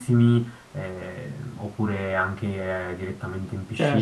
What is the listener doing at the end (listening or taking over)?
taking over